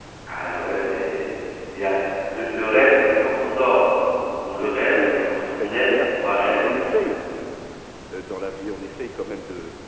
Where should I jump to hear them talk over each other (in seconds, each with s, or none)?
4.6 s